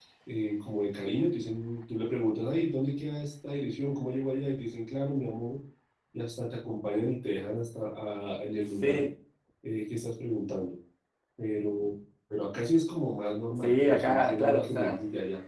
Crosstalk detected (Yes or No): Yes